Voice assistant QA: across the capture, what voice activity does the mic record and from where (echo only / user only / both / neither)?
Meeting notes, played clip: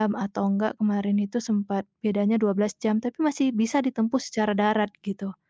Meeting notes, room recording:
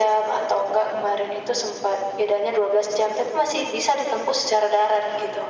echo only